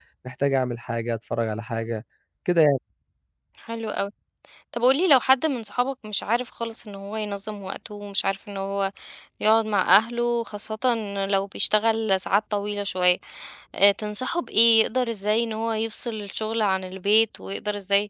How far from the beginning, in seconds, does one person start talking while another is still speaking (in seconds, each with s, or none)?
none